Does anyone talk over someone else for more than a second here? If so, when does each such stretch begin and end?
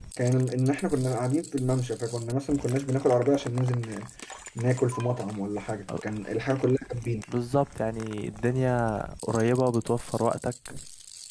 none

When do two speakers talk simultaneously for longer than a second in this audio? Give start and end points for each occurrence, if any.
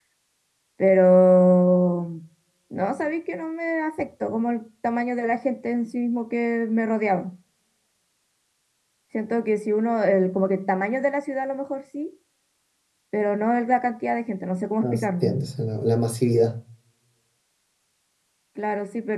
none

